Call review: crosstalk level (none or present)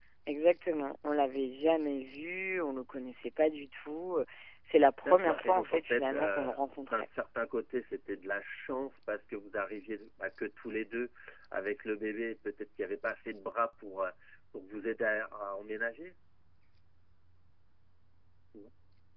present